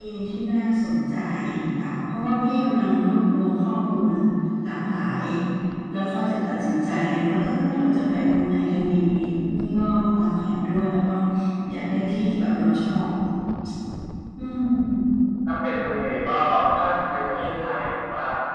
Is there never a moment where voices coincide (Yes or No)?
Yes